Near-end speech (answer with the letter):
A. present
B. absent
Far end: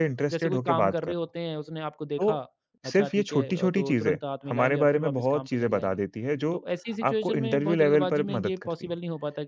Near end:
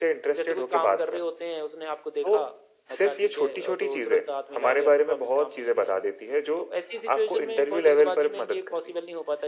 B